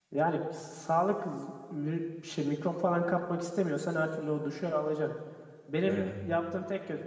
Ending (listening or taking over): listening